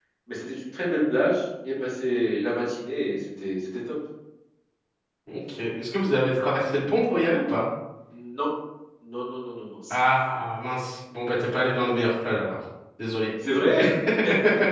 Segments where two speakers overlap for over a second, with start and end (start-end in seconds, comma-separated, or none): none